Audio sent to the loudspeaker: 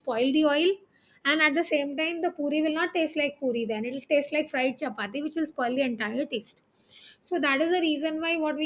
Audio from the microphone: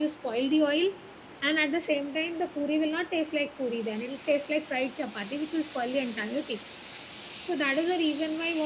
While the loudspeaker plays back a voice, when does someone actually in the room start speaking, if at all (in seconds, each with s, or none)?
none